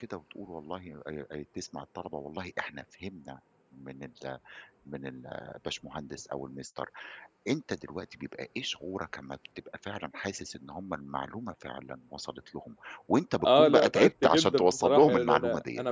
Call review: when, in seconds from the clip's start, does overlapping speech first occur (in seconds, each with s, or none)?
13.4 s